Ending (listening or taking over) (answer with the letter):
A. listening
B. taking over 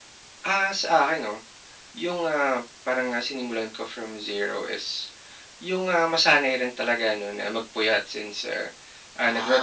A